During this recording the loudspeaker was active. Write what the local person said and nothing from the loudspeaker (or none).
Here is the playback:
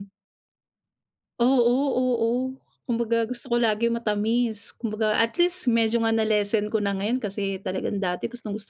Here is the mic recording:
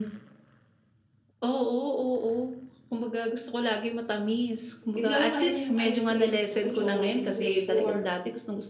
bibili ako kahit na yung ice cream, gusto ko chocolate yung flavor.